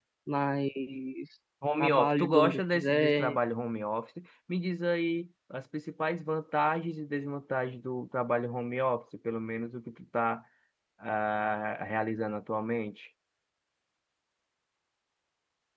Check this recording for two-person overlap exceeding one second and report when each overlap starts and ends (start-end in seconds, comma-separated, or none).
1.8-3.4